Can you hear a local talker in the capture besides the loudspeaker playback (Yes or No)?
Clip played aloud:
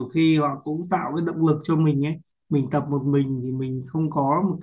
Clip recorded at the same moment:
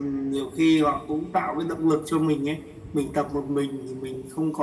No